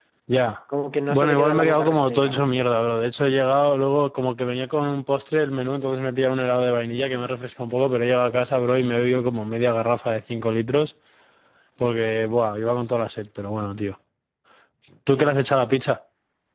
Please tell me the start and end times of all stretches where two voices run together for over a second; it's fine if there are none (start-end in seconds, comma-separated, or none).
1.1-2.4